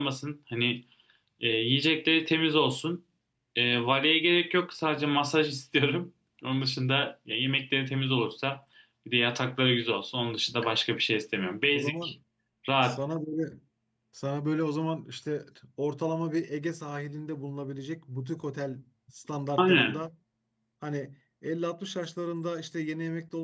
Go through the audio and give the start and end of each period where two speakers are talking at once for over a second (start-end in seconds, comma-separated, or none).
none